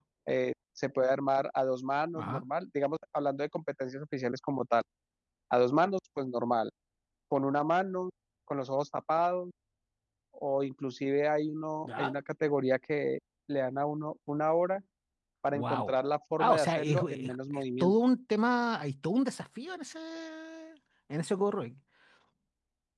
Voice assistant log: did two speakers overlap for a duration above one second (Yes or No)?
Yes